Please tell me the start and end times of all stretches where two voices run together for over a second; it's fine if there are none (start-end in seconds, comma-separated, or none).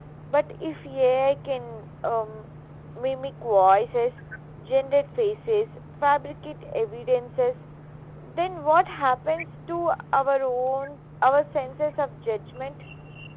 none